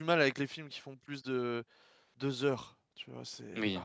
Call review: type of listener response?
taking over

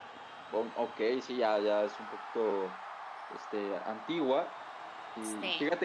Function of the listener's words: listening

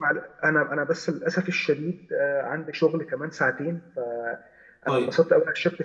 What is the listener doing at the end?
listening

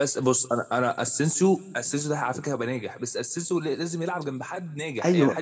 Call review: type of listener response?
taking over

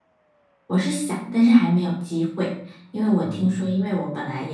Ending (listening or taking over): listening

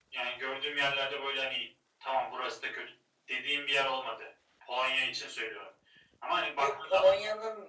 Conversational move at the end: taking over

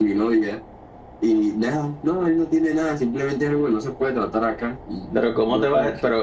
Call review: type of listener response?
taking over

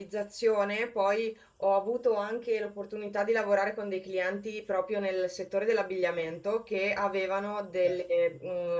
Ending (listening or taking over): listening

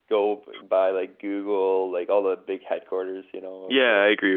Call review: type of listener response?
taking over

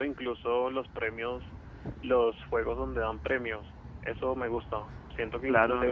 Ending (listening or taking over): listening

